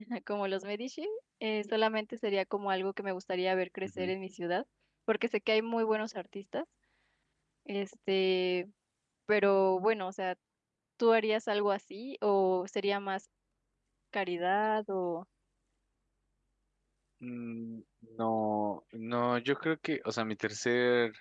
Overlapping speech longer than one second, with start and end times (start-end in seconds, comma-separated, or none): none